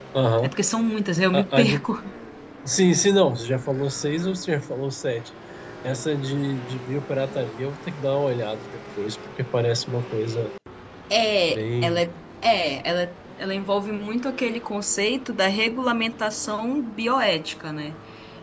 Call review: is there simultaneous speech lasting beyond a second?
No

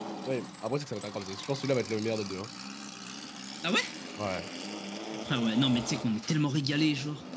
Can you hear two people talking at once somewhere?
No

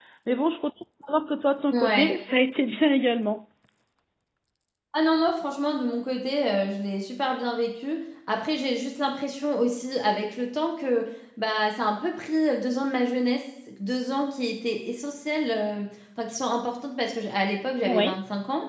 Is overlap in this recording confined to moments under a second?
Yes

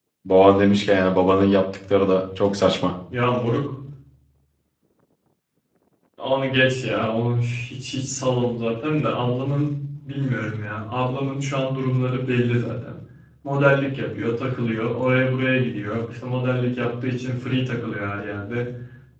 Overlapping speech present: No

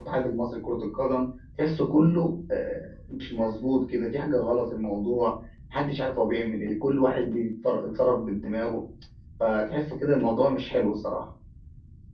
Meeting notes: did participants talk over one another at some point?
No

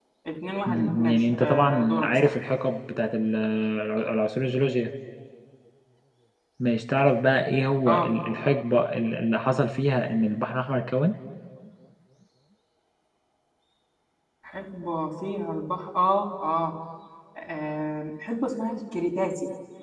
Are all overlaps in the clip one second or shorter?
No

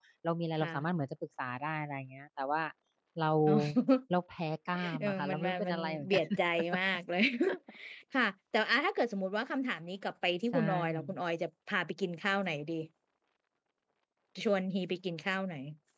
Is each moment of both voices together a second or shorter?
No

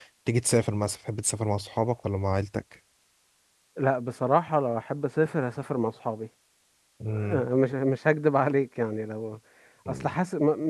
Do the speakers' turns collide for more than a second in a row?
No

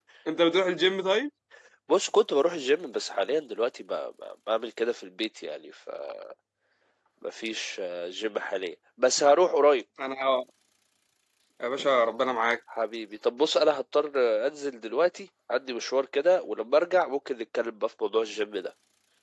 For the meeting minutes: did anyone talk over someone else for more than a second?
No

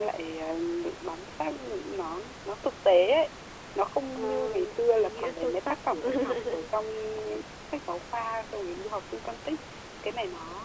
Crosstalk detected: Yes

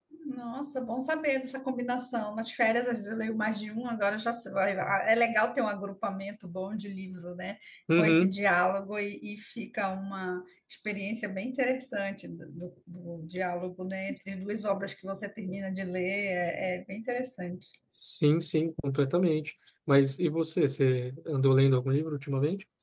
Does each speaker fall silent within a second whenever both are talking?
Yes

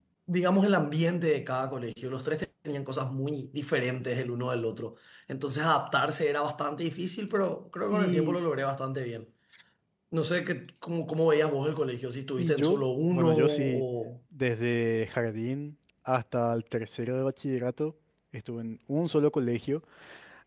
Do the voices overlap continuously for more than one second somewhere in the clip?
Yes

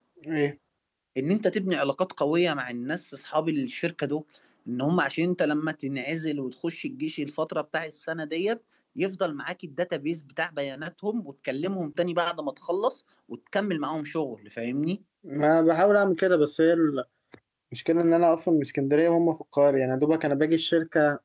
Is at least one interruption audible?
No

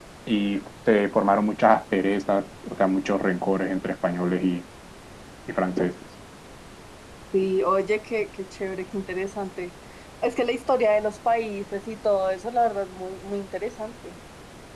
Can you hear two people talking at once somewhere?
No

